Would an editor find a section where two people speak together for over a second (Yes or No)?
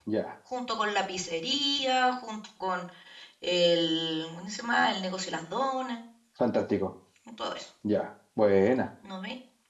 No